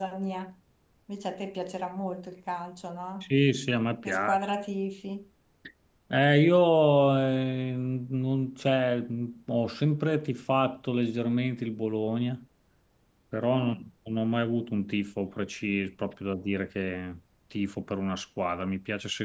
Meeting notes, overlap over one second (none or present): none